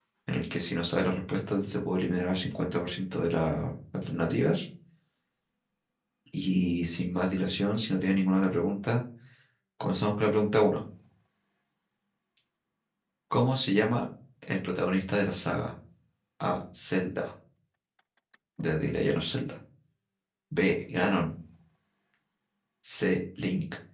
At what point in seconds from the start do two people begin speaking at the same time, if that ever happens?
none

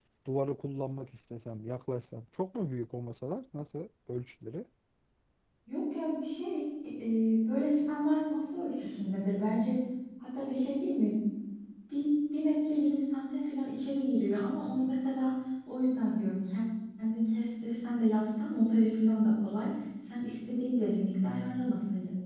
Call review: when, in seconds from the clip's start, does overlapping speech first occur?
none

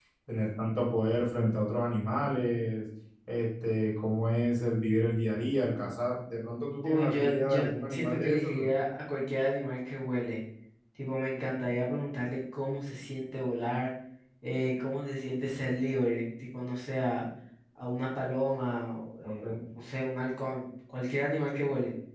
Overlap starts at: 6.8 s

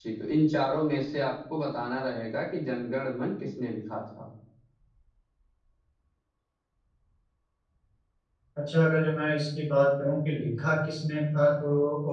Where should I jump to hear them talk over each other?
none

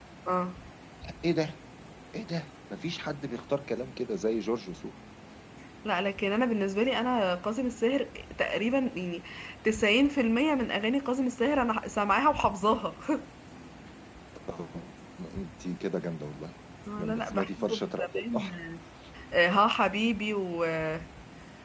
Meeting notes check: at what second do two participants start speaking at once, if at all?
17.0 s

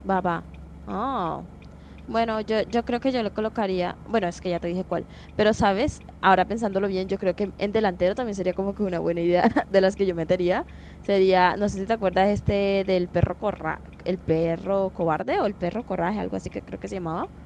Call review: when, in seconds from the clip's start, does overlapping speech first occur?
none

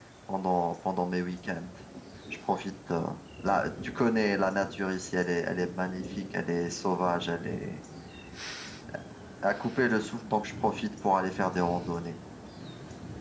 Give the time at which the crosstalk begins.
none

